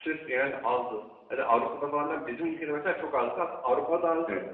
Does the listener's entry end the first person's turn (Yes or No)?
No